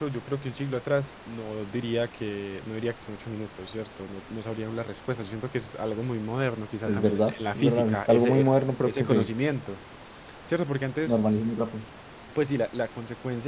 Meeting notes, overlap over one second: present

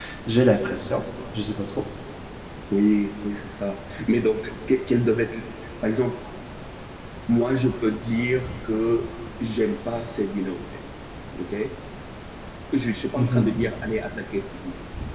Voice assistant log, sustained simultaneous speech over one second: none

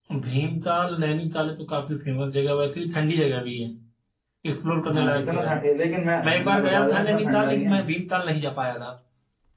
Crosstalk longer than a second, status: present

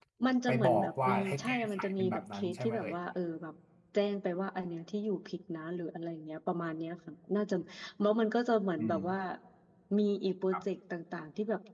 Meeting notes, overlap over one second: present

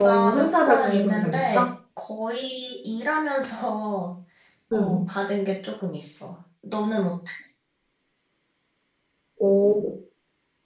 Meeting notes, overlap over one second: present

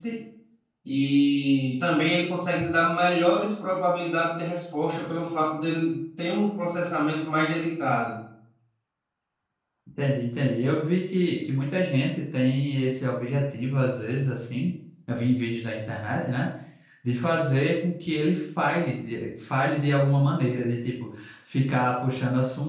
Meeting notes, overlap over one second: none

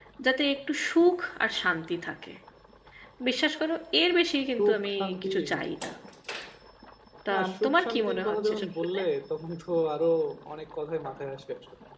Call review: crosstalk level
present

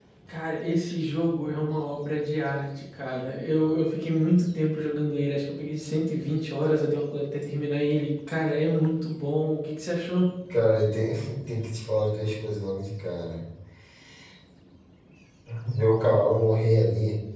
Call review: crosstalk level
none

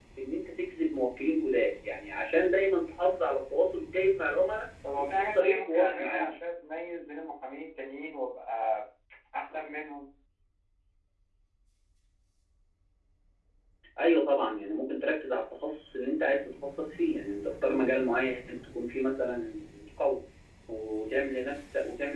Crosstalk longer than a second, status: present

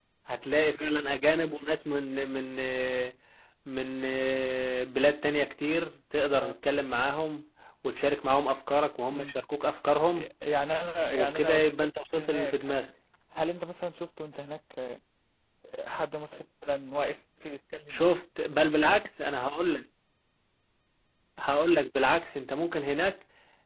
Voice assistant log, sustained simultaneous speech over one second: present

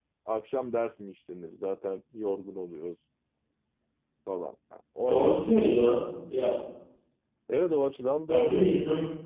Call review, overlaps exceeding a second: none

